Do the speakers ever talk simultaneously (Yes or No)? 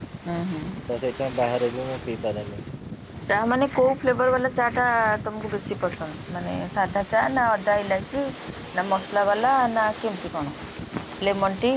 No